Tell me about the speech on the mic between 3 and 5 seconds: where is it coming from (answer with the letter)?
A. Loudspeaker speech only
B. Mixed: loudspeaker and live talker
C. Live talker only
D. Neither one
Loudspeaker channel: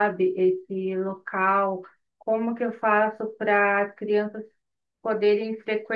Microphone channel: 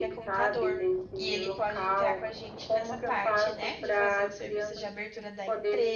B